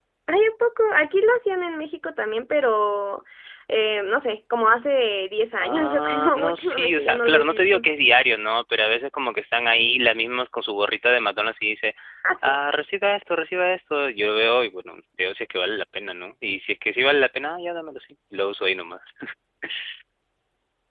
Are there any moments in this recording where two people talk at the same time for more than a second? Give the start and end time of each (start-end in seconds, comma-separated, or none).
5.6-7.8